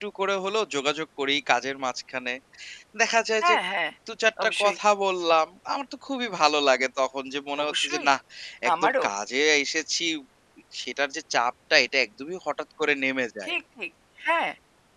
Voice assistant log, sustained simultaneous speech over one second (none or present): none